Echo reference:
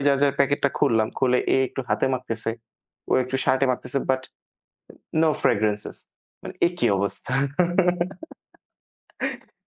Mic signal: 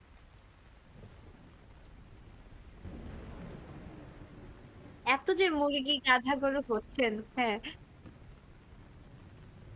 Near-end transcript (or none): এত যে মুরগি, গাধা, গরু হচ্ছেন। হ্যাঁ।